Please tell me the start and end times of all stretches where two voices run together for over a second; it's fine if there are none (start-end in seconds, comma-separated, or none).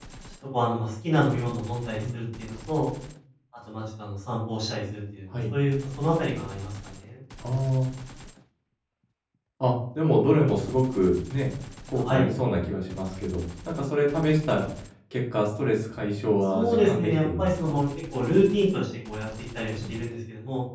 16.5-17.8